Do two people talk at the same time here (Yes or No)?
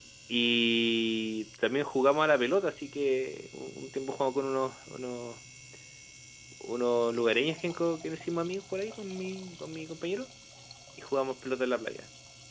No